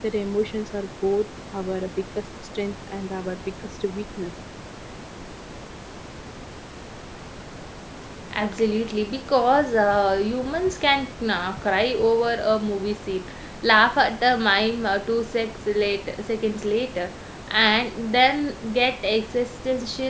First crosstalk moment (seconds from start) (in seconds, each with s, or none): none